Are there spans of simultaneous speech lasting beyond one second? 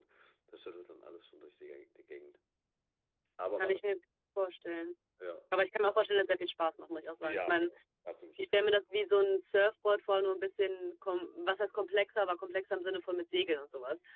No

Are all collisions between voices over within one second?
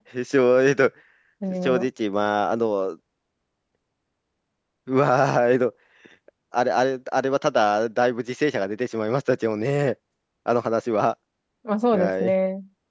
Yes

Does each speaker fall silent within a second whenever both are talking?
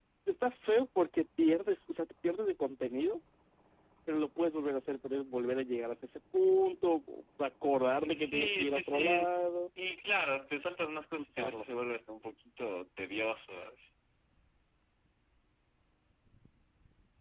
No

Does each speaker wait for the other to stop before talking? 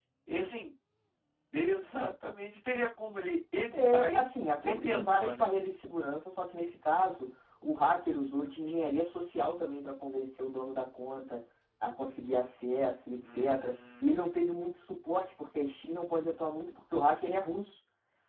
No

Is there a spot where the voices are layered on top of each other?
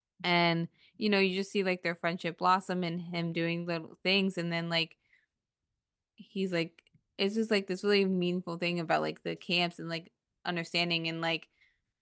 No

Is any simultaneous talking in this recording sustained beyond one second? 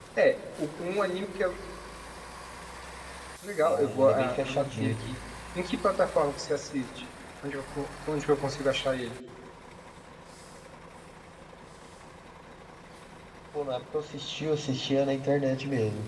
Yes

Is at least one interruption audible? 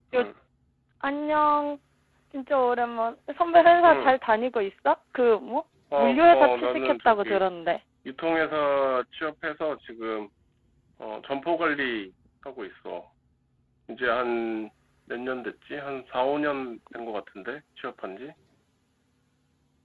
Yes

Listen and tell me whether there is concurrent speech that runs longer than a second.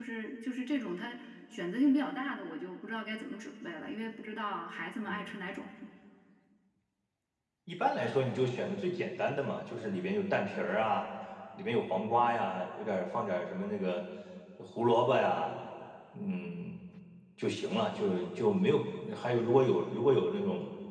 No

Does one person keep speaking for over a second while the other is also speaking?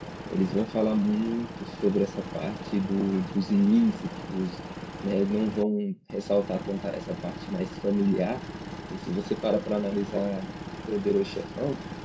No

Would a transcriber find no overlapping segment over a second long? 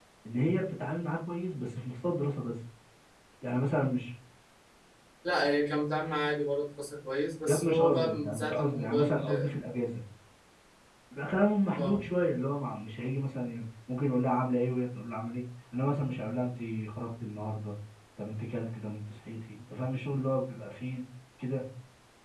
No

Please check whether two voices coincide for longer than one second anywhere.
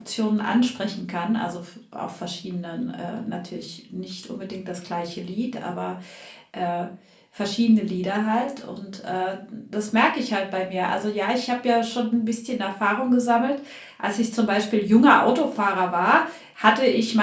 No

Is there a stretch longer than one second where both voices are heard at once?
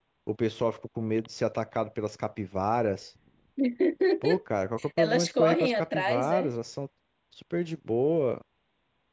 Yes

